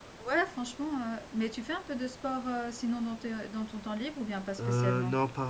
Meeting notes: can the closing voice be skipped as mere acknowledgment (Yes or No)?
No